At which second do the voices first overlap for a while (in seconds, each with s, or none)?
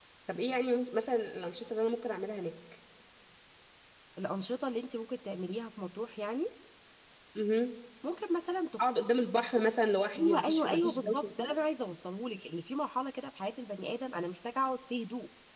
10.1 s